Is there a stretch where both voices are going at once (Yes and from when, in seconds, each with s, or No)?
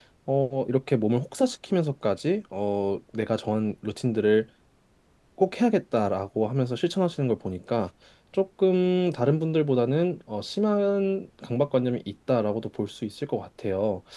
No